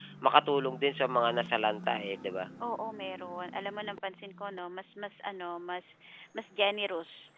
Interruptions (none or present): none